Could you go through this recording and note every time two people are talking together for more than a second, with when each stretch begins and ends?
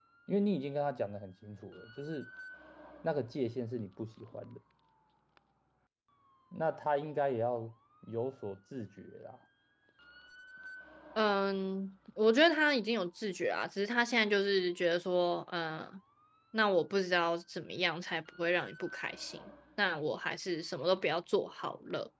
none

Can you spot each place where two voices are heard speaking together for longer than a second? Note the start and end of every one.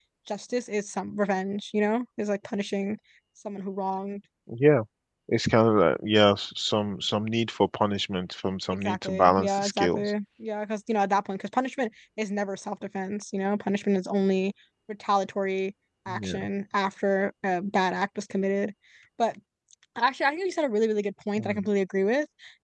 8.7-10.1

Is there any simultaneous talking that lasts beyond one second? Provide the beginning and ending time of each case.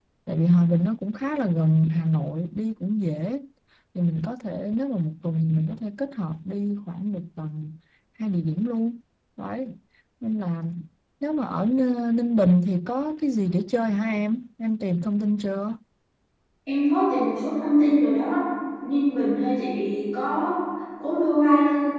none

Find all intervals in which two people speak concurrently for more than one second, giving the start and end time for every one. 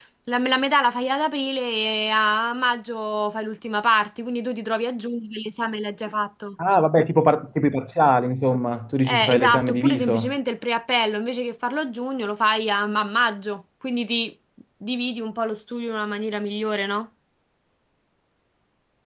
9.0-10.3

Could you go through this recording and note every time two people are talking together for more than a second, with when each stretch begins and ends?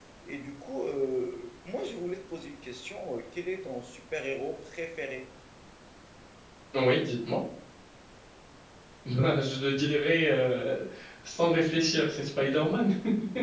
none

